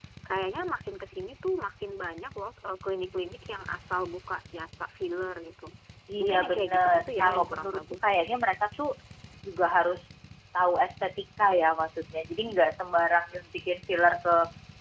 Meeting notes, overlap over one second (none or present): present